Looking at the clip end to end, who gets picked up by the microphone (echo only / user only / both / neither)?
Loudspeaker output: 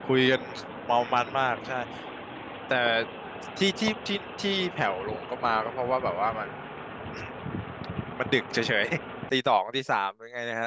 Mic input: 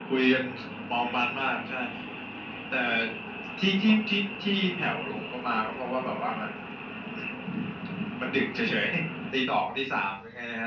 echo only